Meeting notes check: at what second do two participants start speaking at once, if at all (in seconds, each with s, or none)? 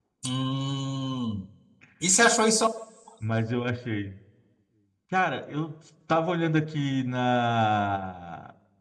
none